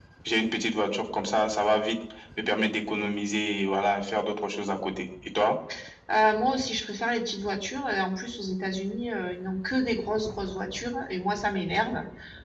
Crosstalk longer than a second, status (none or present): none